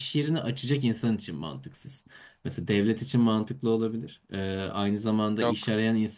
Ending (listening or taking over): listening